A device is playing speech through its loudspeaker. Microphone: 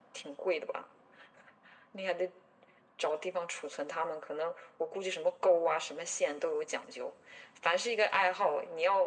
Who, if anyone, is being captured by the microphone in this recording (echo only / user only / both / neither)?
echo only